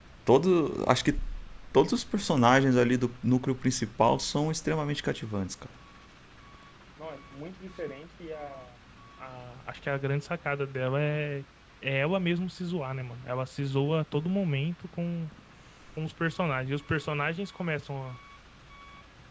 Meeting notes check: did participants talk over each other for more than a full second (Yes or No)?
No